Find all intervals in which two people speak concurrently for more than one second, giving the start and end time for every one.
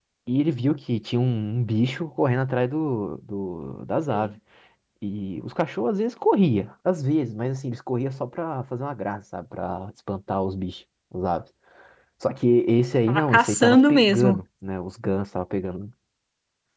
13.1-14.4

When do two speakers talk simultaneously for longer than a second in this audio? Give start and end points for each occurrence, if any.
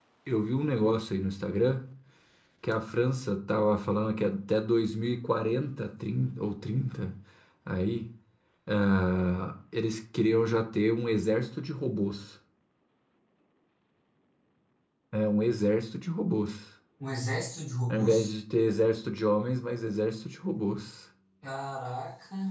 none

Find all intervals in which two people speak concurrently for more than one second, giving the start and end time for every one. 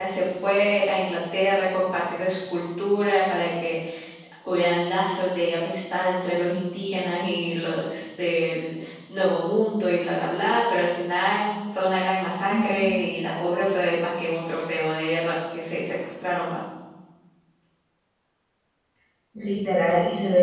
none

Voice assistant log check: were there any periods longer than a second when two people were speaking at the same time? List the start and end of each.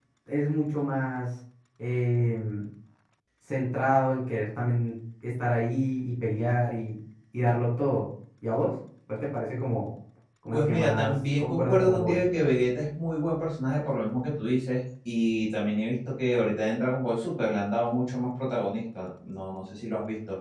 10.5-12.2

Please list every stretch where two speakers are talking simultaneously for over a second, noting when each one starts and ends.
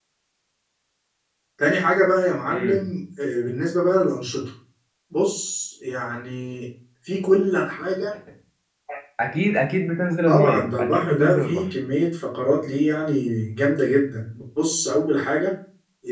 10.3-11.7

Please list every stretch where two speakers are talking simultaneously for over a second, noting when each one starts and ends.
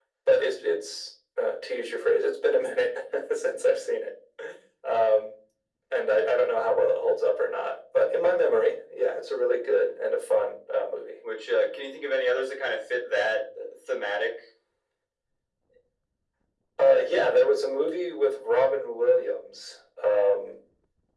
none

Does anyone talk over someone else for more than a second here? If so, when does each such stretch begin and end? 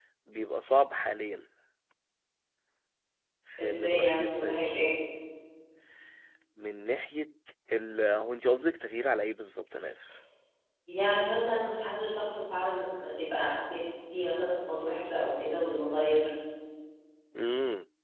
3.6-4.8

